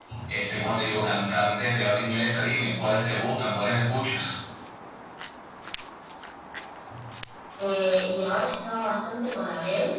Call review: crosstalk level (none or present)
none